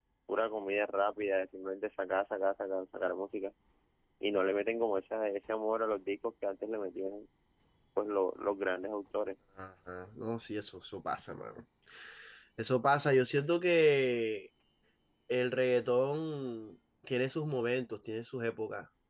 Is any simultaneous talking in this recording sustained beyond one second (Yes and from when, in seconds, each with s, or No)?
No